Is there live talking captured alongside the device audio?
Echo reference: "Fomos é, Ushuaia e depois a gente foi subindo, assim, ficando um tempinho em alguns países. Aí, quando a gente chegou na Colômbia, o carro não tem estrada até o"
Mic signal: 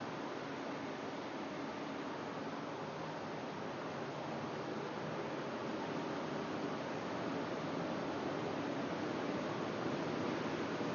No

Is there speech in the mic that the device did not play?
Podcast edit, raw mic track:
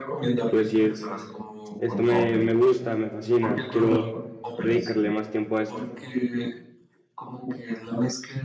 Yes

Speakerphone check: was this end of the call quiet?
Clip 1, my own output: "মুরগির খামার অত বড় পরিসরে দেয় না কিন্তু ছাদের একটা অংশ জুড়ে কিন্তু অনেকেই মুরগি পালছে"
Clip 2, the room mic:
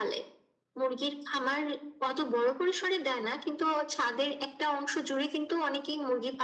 Yes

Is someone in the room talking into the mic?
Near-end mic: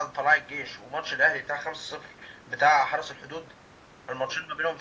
No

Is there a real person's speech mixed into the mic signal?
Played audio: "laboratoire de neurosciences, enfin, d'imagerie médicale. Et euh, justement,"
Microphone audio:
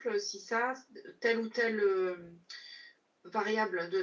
Yes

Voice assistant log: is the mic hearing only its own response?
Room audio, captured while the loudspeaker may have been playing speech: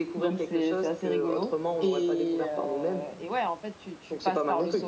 No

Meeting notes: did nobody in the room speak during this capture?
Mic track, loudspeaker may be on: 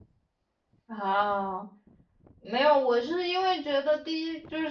No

